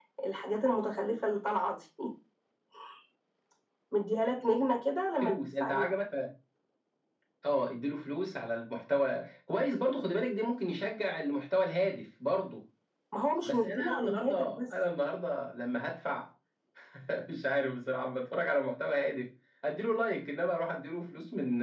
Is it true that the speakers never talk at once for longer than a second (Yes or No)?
No